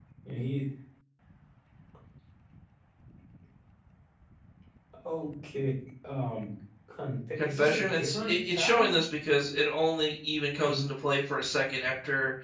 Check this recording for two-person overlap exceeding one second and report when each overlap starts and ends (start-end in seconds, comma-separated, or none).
7.4-9.0